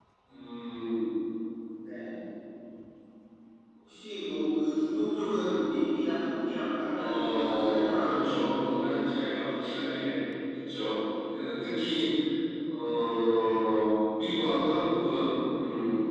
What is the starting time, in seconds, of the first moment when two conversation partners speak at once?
7 s

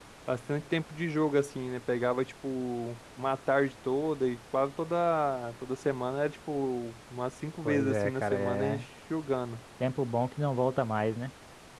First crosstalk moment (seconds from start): 8 s

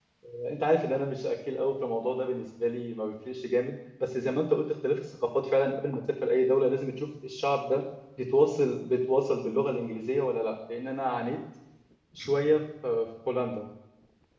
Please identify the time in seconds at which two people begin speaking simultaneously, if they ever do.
none

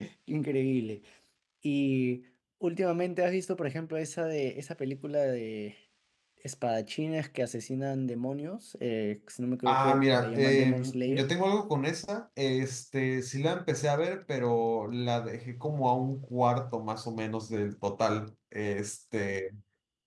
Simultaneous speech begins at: 10 s

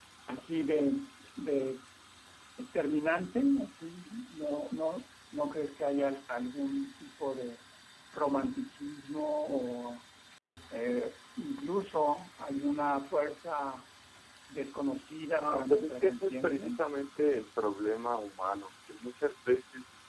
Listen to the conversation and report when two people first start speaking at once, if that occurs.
15 s

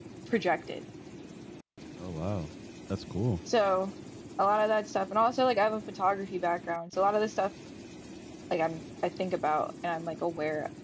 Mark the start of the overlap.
none

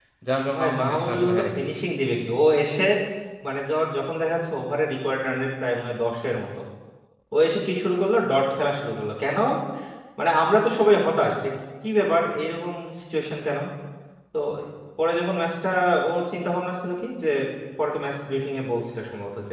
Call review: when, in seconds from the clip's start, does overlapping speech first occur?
1 s

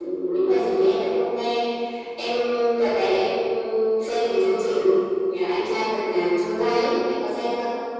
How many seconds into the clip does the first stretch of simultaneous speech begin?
none

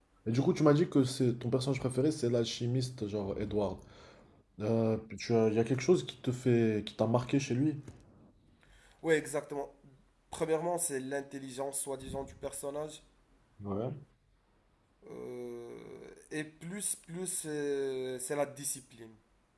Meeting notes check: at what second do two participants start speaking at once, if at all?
none

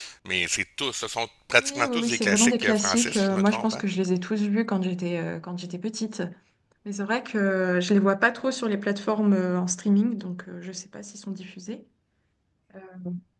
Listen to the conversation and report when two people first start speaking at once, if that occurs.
2 s

